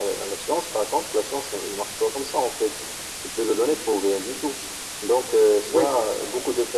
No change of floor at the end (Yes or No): Yes